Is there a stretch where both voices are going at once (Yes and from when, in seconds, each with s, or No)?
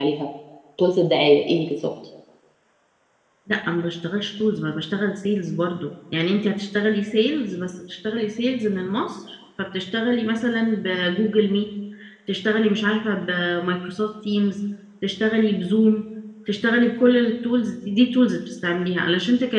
No